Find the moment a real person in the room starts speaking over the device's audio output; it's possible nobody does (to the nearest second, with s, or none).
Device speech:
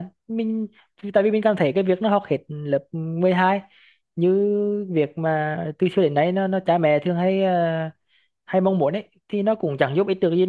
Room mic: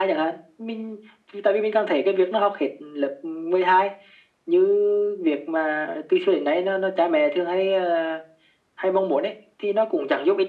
none